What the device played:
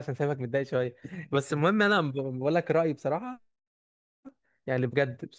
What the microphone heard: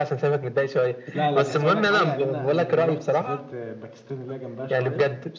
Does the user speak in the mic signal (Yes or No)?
Yes